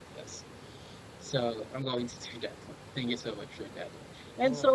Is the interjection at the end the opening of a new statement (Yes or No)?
No